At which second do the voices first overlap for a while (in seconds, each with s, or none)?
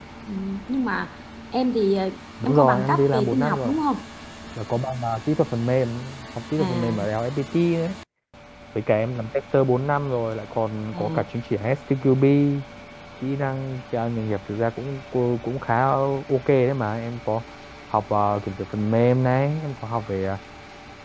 2.4 s